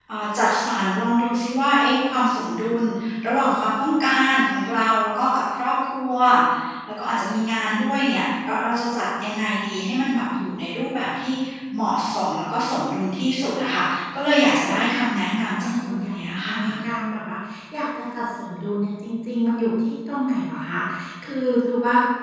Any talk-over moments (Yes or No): Yes